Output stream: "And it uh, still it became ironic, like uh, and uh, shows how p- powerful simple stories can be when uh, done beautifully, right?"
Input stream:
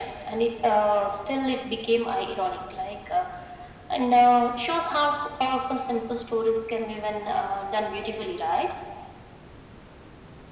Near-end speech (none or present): none